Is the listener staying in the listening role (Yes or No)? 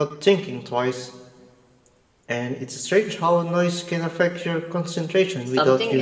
No